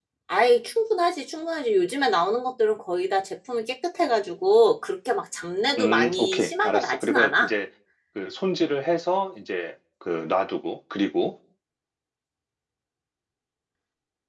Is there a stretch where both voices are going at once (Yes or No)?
Yes